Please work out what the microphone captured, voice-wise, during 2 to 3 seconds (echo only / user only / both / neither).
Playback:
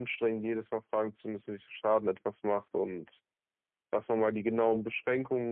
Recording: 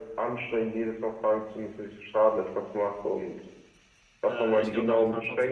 echo only